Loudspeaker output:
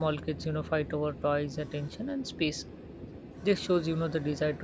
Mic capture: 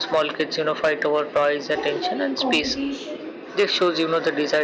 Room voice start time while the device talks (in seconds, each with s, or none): 1.7 s